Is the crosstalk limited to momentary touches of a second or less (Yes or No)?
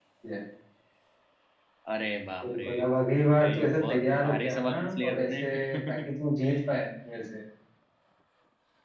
No